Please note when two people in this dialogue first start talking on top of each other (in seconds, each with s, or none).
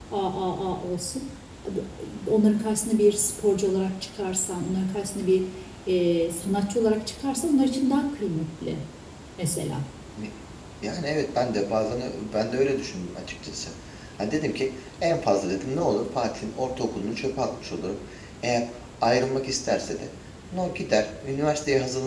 none